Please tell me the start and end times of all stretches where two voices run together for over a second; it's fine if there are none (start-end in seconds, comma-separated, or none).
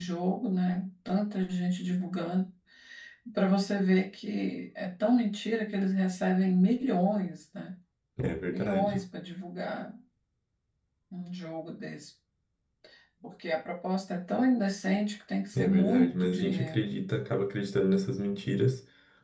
15.6-16.8